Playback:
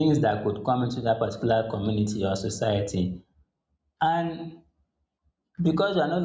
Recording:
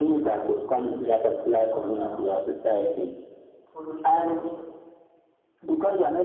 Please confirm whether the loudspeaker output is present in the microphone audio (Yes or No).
Yes